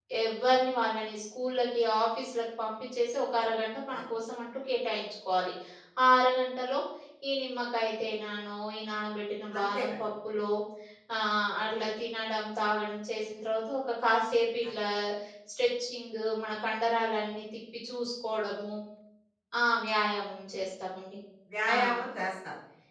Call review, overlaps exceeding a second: none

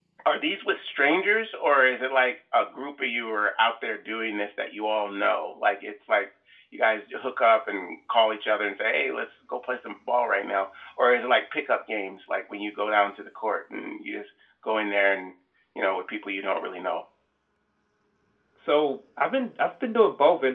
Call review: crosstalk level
none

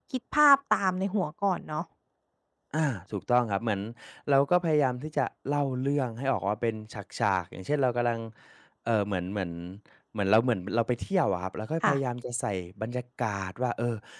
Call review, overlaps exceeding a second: none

